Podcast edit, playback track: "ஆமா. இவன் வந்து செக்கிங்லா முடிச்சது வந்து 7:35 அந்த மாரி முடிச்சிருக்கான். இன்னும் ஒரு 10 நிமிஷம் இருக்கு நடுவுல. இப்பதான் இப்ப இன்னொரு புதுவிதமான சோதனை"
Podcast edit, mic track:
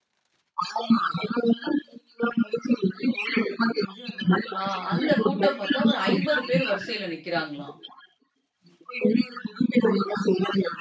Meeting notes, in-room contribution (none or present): present